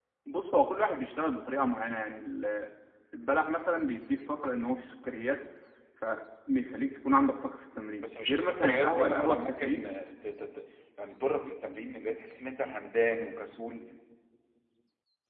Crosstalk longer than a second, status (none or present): present